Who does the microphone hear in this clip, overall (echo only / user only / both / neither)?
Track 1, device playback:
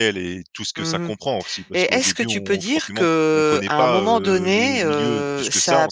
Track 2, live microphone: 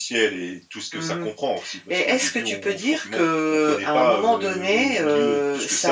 echo only